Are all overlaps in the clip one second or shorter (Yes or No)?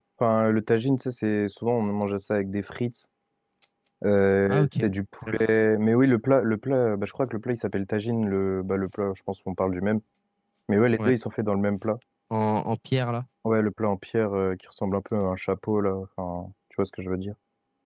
Yes